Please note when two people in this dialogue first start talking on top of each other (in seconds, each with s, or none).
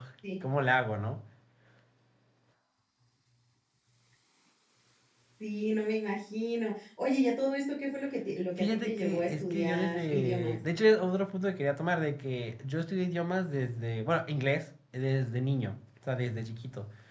8.6 s